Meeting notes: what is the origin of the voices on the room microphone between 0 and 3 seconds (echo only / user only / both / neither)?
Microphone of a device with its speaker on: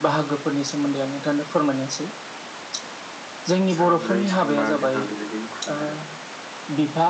echo only